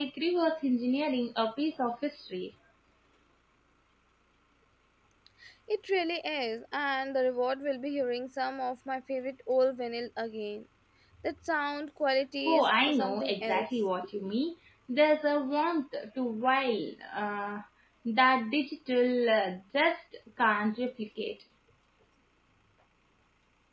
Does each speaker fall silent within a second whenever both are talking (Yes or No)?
No